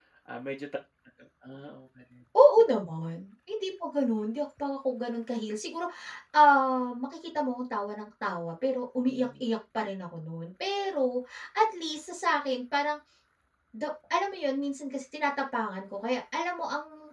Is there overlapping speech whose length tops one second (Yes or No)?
No